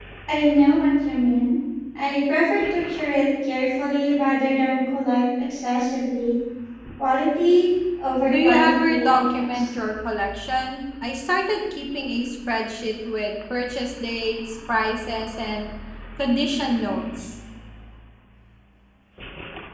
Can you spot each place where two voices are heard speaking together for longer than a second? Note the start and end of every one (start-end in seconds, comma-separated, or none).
8.3-9.6